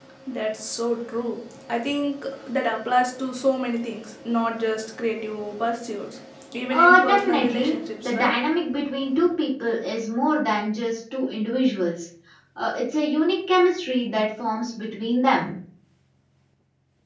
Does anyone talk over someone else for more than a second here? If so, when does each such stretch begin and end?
6.7-8.3

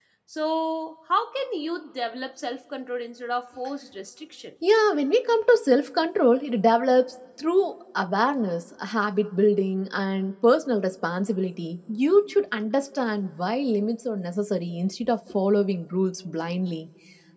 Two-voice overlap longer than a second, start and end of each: none

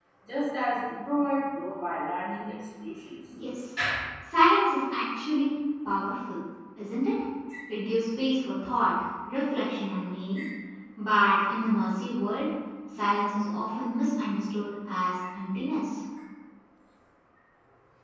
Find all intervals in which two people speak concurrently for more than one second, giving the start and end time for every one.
none

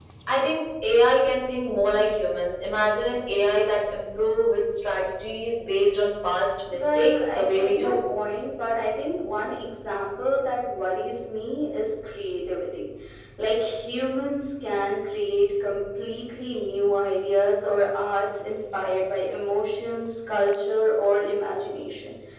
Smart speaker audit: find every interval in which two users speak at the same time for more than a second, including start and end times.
6.7-8.0

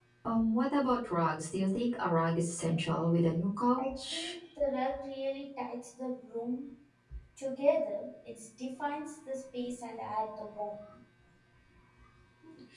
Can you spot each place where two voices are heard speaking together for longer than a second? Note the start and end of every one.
none

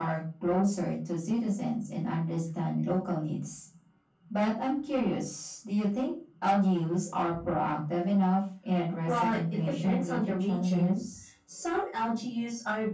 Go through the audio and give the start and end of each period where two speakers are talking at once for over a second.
9.1-11.0

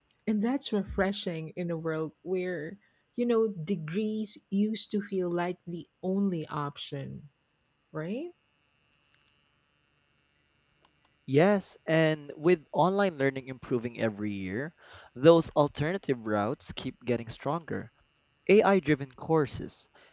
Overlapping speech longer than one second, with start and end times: none

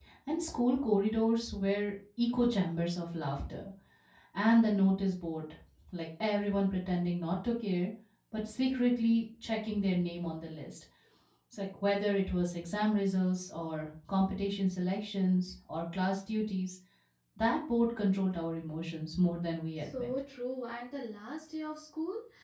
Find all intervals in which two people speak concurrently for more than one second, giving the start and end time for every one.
none

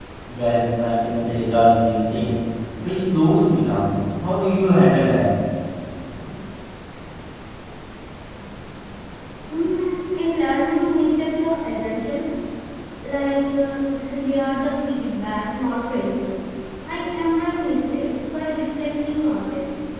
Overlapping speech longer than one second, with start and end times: none

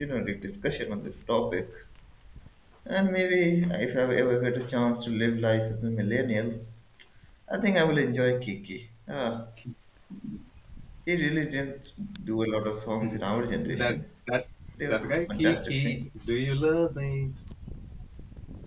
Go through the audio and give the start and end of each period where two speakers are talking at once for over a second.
14.8-16.1

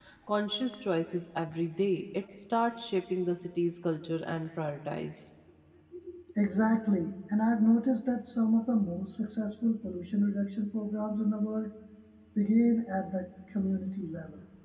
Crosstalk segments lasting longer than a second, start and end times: none

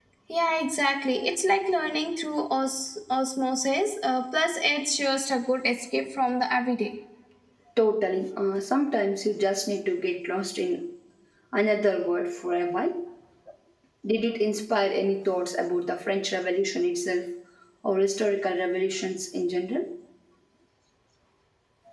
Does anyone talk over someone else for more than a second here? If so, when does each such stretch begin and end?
none

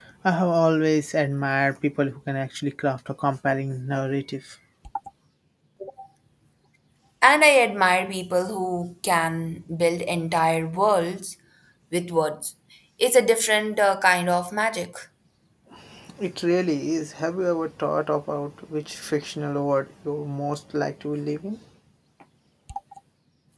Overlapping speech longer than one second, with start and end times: none

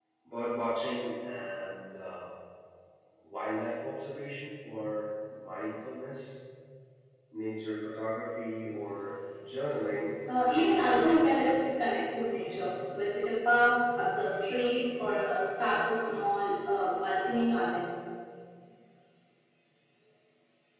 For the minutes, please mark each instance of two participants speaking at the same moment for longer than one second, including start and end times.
10.3-11.6

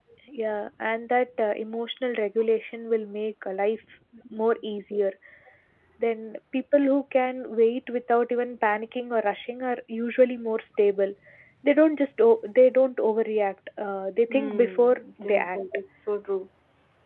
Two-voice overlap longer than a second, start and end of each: 14.3-15.6

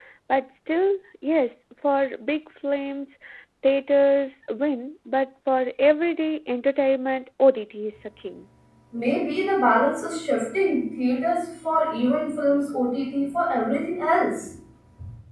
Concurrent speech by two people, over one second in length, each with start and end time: none

